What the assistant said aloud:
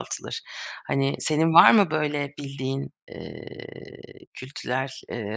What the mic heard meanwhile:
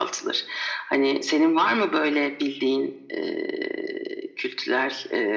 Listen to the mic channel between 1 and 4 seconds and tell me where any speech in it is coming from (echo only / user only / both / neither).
echo only